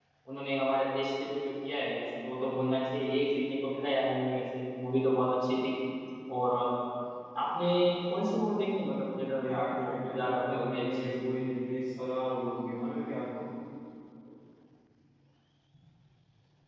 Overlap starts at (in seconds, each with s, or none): 9.4 s